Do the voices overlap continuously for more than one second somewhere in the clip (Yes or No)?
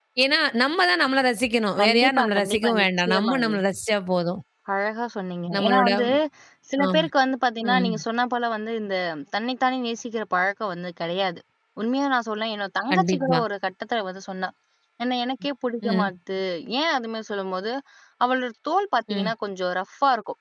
Yes